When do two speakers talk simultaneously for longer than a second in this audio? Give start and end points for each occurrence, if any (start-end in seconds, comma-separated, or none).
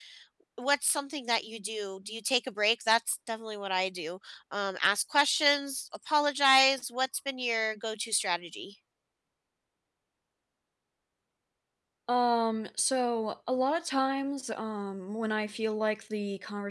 none